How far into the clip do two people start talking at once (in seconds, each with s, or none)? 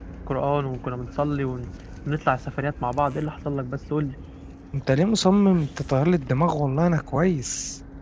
none